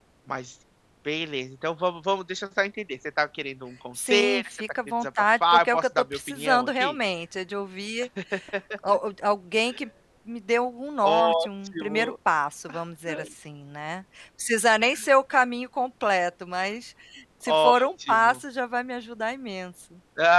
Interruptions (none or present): present